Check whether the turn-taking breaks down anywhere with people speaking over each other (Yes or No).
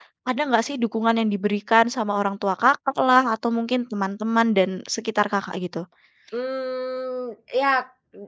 No